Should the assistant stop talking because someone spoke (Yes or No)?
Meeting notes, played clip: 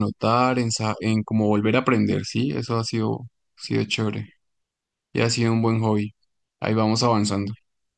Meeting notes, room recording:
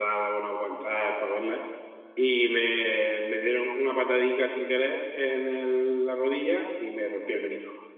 Yes